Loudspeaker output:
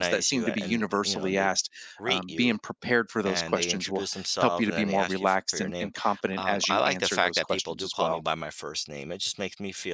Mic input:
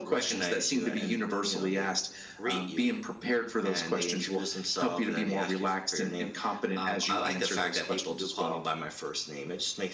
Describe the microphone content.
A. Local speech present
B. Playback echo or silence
B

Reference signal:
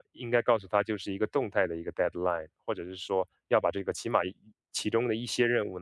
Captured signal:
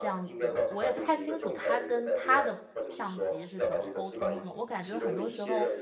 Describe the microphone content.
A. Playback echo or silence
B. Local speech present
B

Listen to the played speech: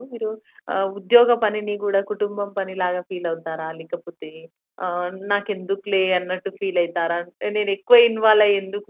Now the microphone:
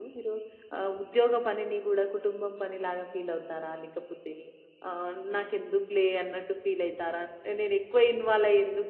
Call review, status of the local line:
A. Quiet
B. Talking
A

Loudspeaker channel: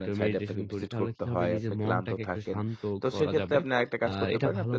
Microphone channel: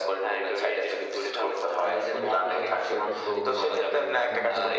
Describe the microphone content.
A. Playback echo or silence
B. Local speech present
B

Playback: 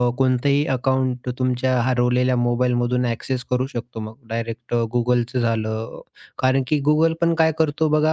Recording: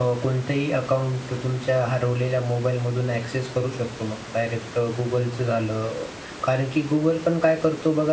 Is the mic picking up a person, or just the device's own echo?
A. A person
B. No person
B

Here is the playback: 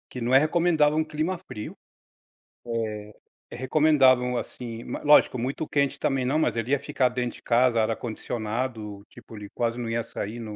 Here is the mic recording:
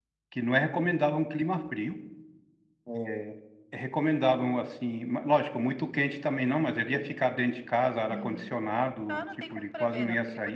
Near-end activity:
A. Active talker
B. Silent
A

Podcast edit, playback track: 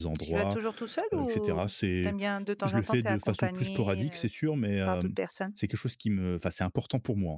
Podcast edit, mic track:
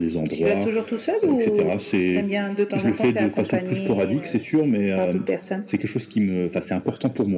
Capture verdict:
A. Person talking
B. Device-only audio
B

